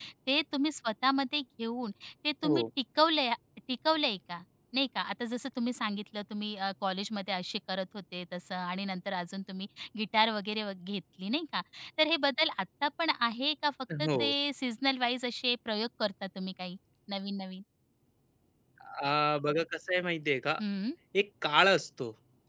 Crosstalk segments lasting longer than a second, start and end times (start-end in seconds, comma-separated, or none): none